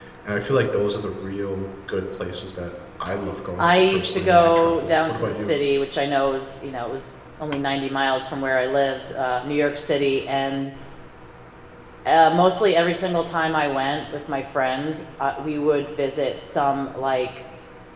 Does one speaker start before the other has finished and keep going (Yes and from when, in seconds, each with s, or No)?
Yes, from 3.6 s